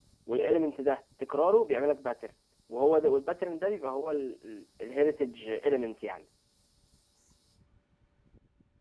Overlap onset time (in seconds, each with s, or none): none